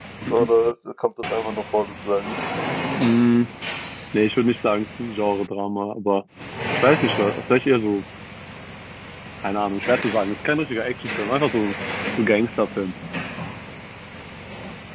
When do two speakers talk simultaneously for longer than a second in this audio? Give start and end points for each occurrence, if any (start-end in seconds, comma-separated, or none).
none